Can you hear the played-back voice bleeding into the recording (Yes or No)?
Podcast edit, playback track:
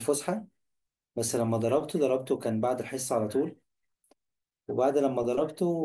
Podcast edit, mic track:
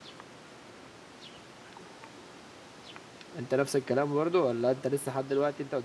No